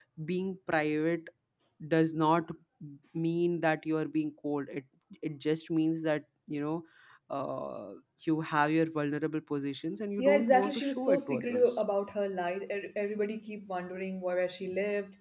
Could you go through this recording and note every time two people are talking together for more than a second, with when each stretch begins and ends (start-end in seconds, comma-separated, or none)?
10.2-11.8